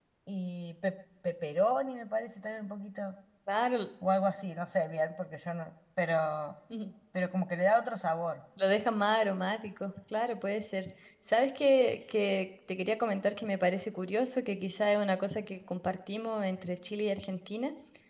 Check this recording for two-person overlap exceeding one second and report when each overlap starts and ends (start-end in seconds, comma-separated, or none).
none